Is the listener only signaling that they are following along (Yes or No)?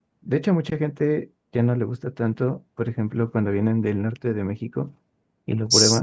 Yes